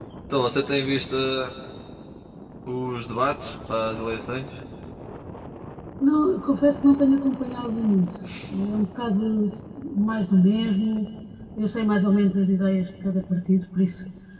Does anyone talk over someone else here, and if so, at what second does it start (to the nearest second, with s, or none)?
none